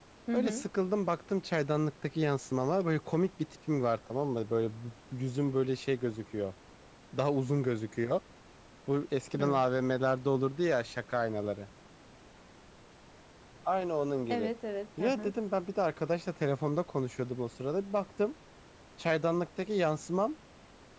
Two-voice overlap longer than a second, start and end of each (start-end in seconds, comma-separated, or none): none